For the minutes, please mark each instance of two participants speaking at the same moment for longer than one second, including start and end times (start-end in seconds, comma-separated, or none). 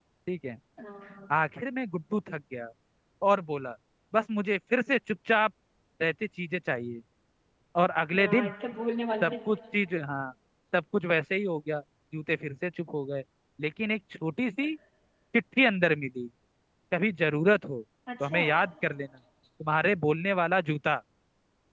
none